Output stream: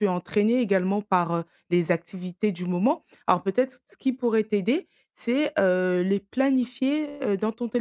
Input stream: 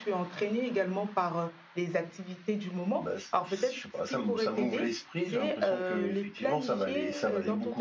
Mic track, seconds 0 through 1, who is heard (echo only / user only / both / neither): echo only